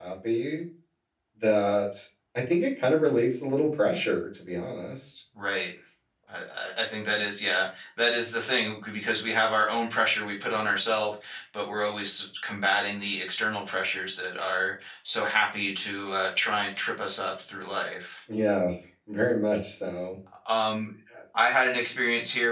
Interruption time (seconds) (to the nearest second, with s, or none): none